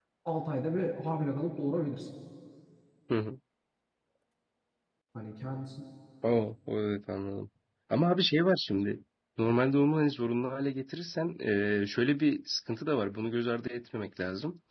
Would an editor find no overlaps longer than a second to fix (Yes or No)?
Yes